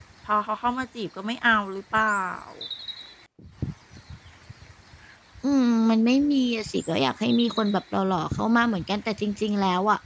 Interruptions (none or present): none